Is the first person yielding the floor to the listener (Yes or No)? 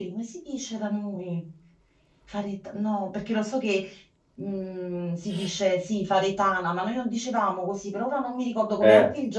Yes